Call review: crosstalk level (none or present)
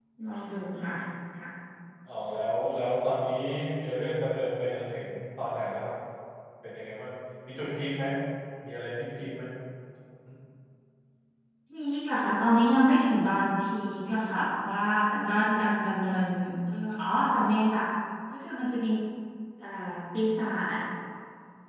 none